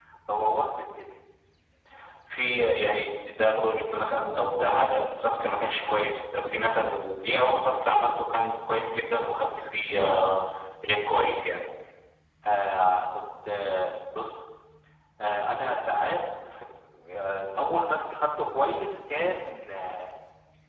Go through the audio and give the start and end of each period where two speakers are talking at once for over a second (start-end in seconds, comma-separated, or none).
none